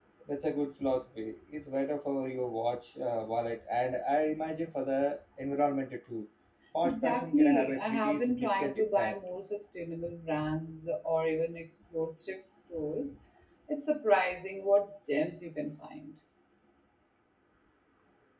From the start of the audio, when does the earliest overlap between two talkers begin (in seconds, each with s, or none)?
6.8 s